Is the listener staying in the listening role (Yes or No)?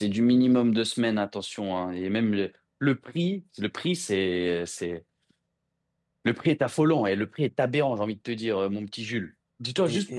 Yes